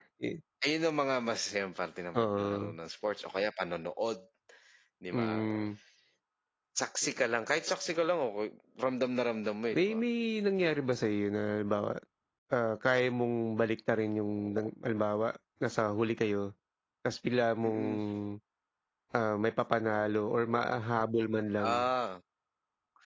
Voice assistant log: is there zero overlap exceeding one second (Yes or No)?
Yes